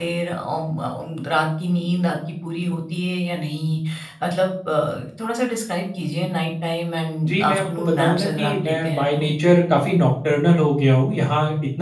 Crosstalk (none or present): present